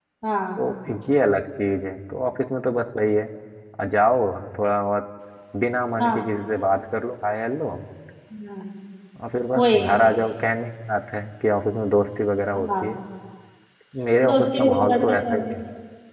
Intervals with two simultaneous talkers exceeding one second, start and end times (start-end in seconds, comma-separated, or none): 14.3-15.5